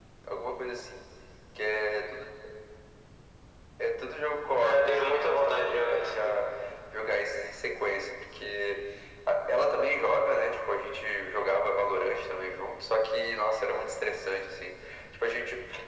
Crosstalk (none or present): present